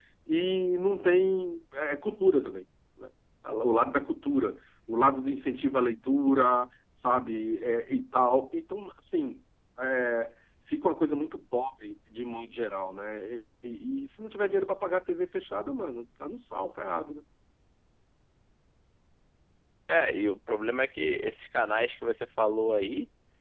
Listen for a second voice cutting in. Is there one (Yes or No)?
No